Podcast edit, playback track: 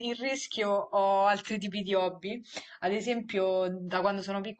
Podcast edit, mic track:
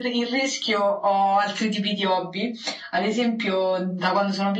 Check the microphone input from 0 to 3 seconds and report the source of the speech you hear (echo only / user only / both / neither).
echo only